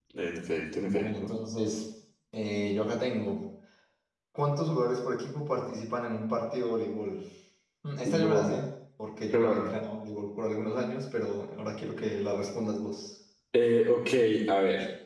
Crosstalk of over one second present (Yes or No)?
No